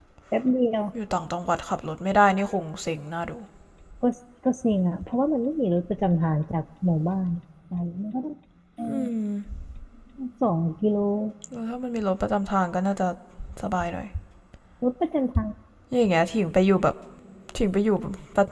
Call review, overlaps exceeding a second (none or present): none